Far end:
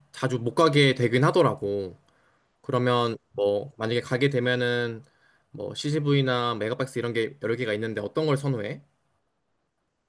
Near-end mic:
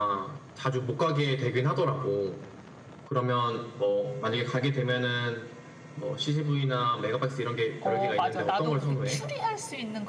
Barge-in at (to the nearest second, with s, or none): 8 s